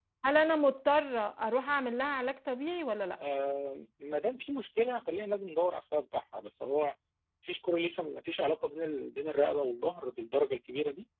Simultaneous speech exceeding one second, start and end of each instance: none

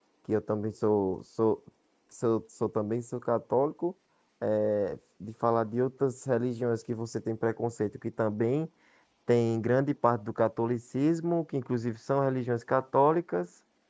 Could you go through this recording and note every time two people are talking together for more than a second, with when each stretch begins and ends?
none

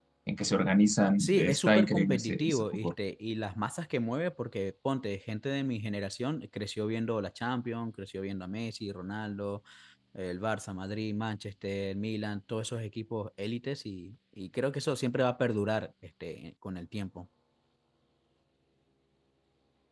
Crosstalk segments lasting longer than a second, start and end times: 1.2-2.9

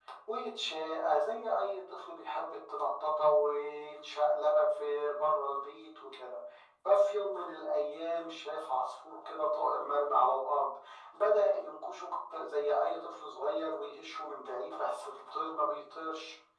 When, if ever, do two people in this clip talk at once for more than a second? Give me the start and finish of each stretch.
none

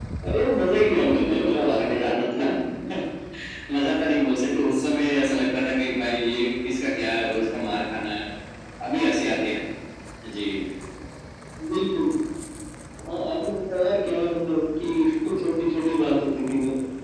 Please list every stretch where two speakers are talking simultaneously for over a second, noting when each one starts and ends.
0.9-2.4

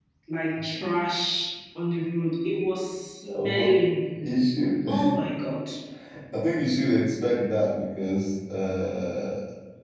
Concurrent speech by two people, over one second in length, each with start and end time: none

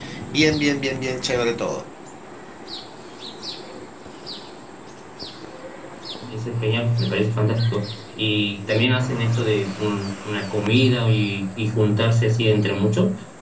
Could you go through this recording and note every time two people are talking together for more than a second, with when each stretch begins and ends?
none

